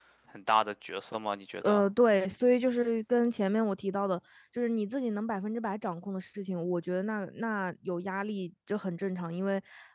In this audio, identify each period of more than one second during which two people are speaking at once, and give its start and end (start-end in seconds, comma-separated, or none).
none